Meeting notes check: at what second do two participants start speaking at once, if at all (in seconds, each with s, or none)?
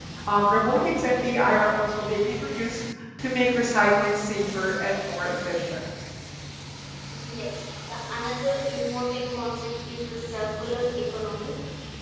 none